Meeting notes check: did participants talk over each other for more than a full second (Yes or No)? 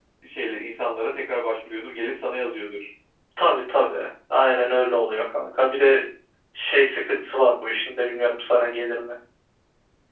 No